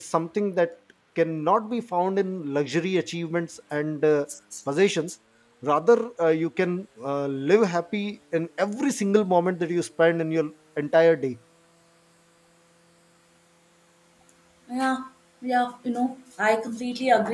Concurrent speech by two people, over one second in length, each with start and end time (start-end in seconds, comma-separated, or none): none